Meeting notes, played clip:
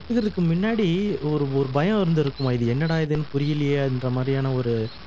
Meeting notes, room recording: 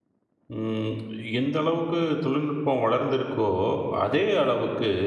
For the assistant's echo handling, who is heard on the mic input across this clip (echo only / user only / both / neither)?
user only